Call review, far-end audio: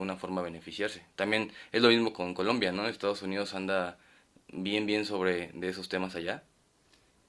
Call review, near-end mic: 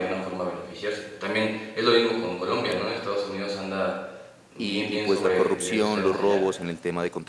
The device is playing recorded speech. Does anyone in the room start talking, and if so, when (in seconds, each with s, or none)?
4.6 s